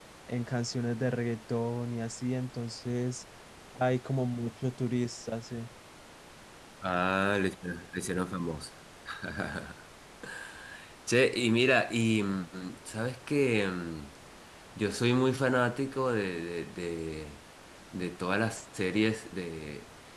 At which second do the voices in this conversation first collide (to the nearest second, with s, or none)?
none